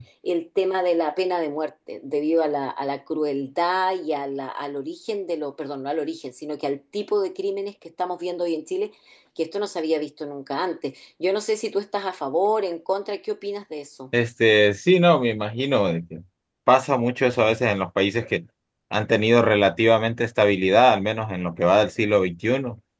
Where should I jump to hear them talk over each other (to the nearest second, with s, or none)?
none